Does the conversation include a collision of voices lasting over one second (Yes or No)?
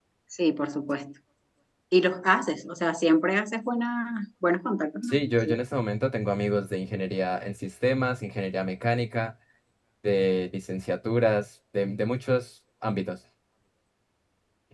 No